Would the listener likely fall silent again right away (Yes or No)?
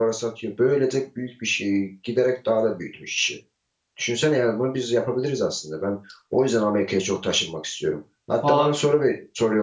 Yes